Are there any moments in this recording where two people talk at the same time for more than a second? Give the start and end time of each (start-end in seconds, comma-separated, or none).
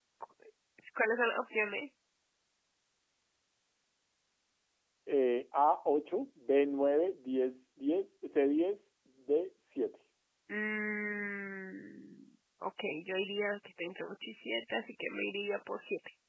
none